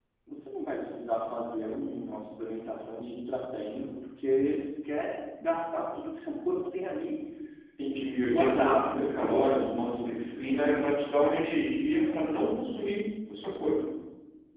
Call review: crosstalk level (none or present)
present